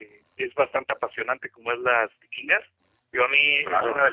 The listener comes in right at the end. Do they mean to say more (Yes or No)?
No